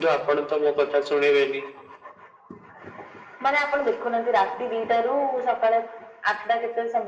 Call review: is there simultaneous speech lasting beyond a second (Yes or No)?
No